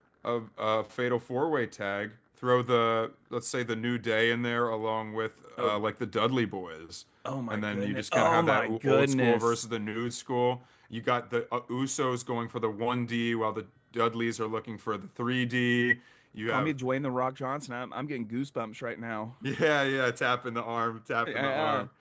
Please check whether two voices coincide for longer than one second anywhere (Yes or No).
Yes